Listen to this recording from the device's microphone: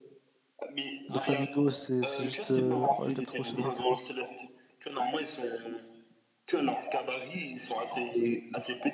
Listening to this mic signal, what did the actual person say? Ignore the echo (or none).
Le Flamingo, c'est c'est juste... euh, oh, je l'aime trop, ce mec. ouais.